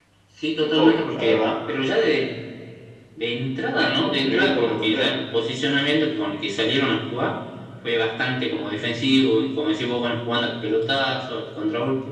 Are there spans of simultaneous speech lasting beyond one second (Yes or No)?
Yes